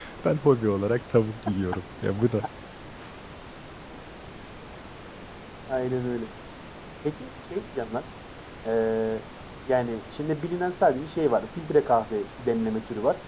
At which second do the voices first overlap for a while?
none

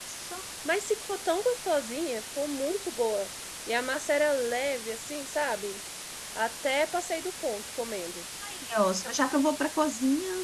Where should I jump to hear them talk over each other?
none

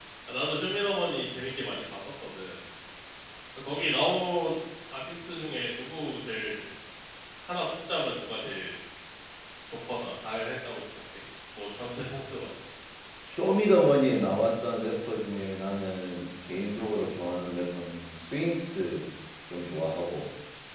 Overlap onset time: none

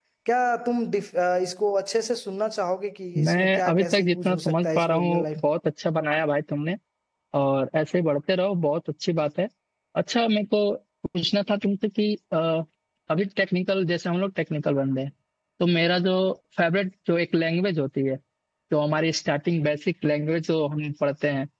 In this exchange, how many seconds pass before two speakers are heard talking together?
3.1 s

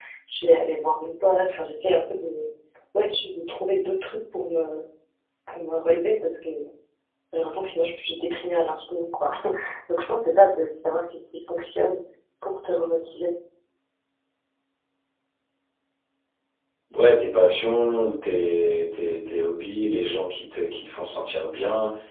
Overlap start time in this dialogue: none

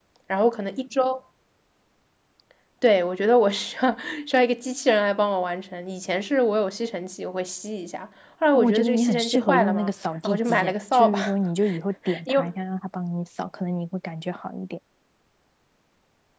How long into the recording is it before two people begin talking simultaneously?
8.5 s

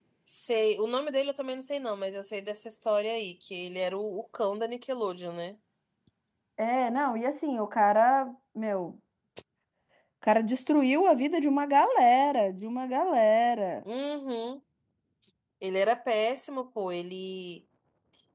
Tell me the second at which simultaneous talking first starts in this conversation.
none

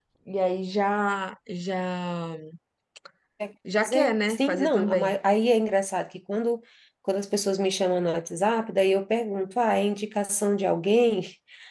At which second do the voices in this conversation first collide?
3.8 s

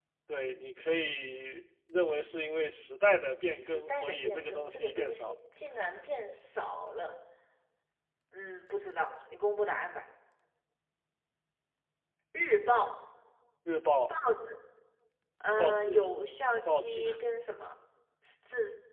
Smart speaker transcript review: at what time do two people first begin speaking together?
3.4 s

